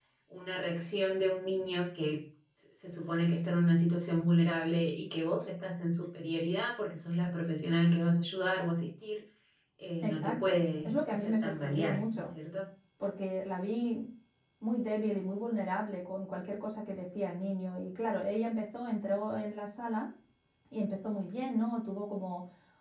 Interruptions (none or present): present